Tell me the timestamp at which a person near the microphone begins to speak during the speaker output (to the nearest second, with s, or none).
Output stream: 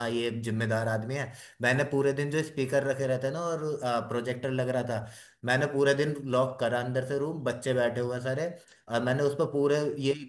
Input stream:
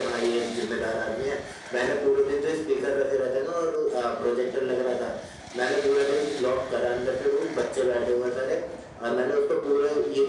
none